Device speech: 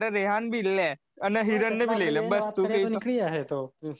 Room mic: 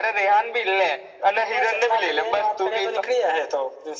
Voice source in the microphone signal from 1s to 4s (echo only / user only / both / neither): echo only